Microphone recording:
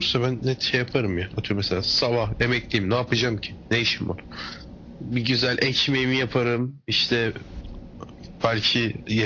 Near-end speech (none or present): none